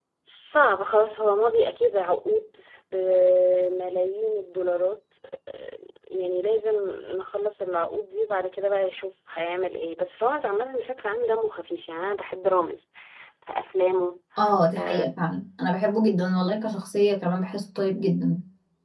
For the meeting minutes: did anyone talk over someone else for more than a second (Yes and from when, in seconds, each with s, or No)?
No